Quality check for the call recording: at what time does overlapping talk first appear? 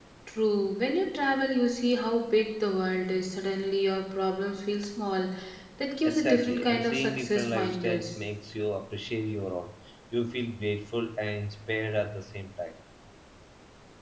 6.0 s

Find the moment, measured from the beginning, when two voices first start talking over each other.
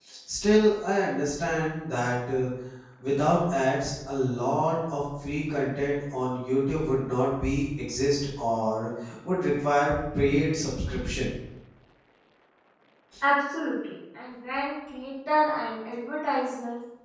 none

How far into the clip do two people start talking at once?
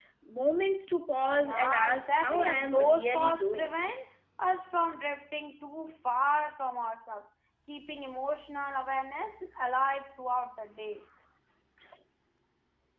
1.4 s

